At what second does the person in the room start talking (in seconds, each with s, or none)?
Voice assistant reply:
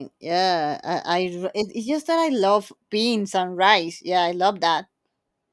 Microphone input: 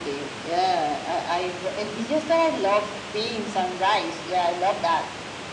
none